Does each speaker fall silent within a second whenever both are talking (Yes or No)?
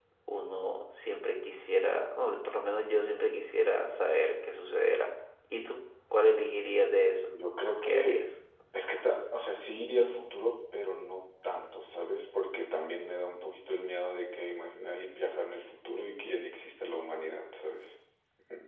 Yes